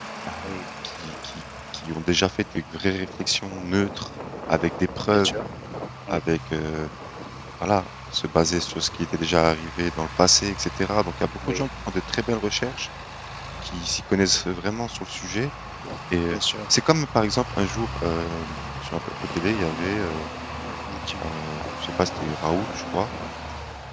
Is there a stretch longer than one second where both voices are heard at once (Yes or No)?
No